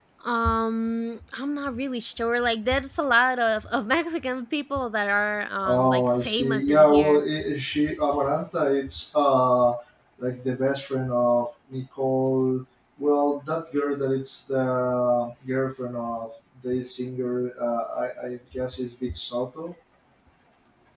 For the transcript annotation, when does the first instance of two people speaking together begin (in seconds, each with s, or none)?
5.6 s